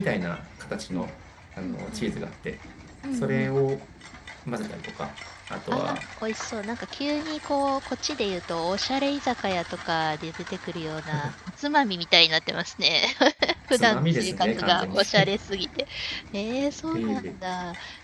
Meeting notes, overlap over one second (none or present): present